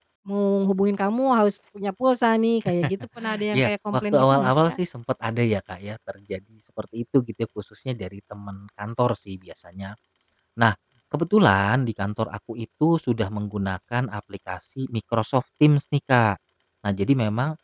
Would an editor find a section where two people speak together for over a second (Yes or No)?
Yes